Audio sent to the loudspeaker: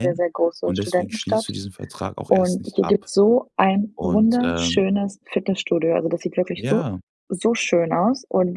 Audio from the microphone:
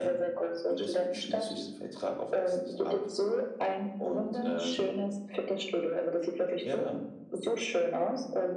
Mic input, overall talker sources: echo only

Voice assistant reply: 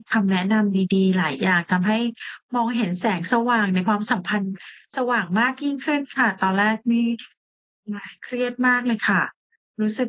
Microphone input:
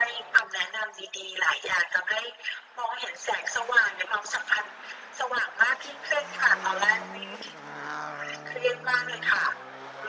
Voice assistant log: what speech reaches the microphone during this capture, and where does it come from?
echo only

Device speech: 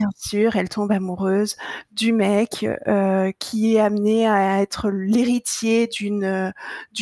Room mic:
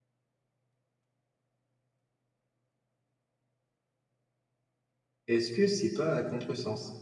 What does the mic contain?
user only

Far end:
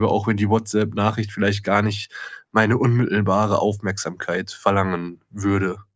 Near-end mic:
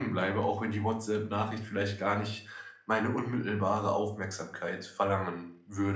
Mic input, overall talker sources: echo only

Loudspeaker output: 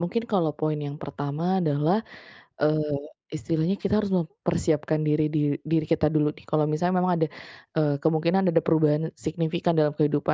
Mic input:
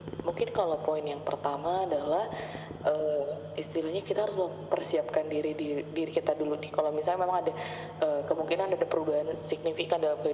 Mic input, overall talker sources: echo only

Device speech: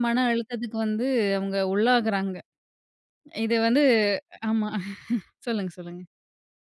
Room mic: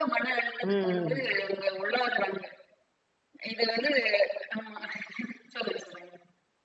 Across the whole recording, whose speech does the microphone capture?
both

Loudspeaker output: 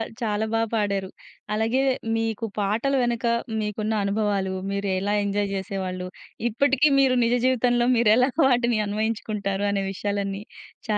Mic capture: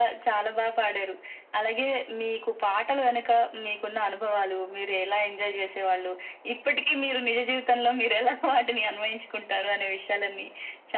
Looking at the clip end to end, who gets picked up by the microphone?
echo only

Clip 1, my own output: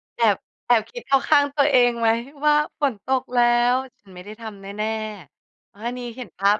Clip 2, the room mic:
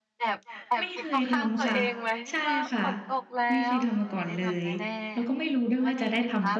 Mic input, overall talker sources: both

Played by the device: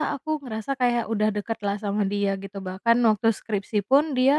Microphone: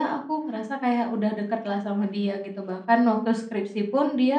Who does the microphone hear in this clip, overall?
echo only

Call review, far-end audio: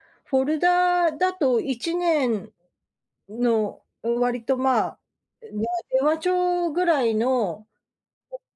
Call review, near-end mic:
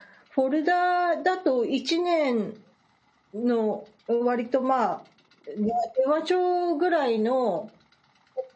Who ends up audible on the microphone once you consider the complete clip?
echo only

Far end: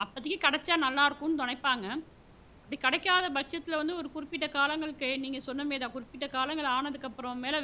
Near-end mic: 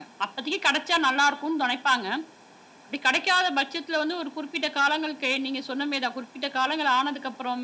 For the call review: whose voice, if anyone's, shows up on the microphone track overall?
echo only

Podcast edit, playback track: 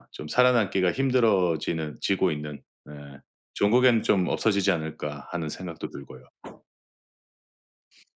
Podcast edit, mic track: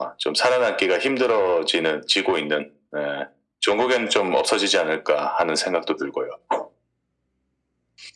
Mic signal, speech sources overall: echo only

